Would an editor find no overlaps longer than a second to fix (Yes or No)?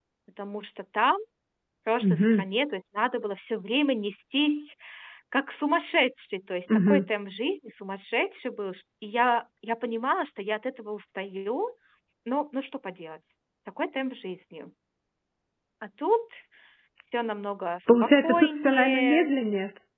No